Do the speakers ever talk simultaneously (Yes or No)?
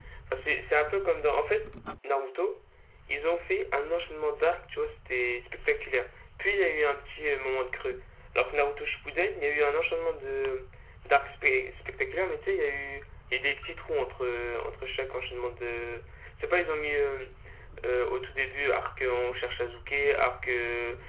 No